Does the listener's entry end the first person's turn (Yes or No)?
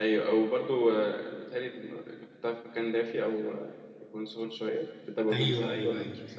Yes